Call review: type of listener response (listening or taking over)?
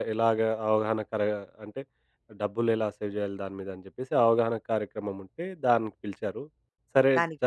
listening